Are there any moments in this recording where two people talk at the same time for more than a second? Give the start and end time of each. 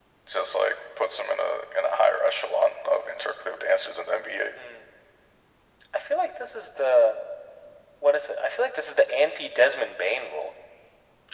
none

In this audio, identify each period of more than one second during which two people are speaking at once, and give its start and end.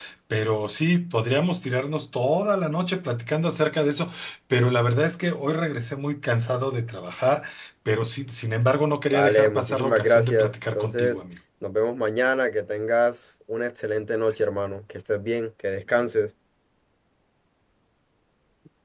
9.1-11.2

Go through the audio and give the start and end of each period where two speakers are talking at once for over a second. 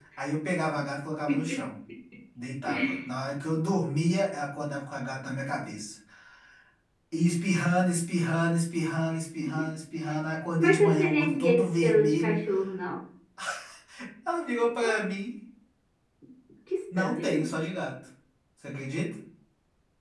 10.6-12.4

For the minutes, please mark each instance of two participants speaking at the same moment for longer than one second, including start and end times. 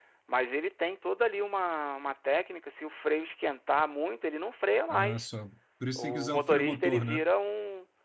6.0-7.2

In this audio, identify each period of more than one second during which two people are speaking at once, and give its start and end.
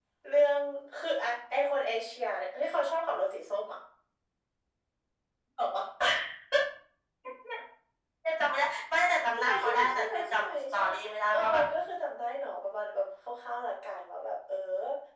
9.4-10.8

